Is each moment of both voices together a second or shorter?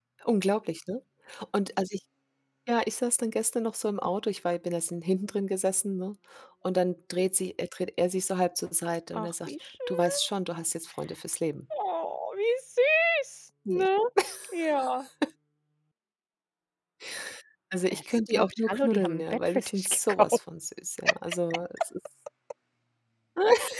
No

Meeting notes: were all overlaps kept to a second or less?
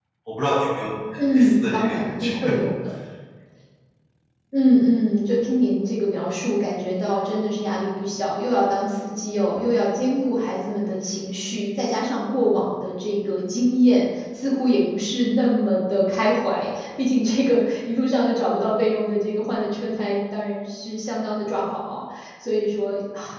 No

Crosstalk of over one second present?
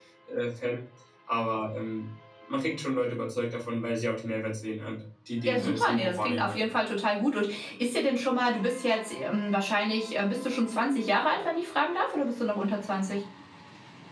Yes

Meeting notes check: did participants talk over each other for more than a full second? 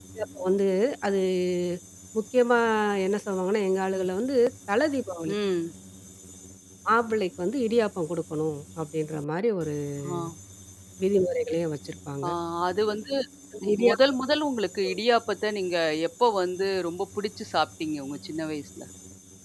No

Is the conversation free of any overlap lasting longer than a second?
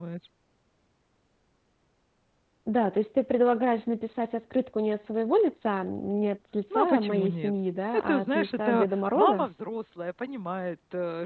No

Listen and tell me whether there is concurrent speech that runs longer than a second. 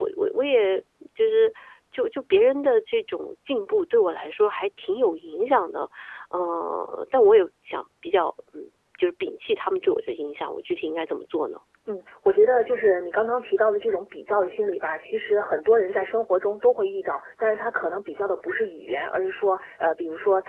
No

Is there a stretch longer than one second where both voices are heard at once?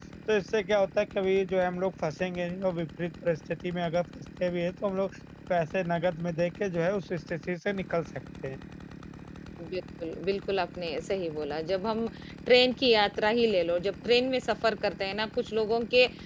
No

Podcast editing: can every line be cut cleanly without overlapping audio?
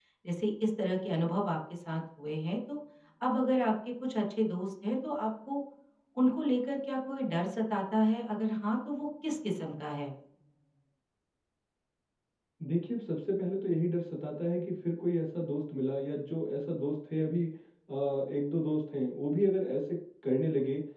Yes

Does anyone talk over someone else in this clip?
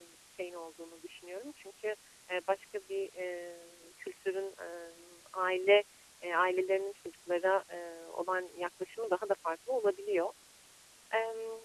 No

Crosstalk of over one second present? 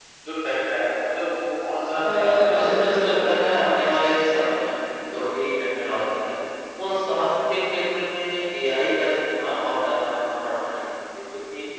Yes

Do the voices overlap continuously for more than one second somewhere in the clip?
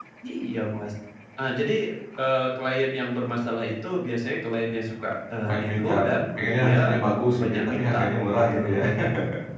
Yes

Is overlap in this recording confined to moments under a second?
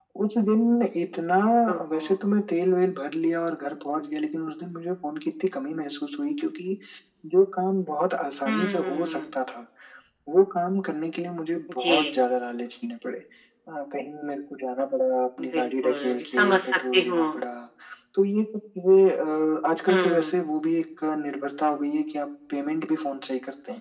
No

